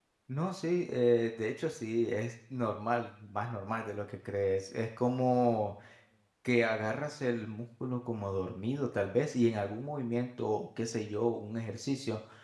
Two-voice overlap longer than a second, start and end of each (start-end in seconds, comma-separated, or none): none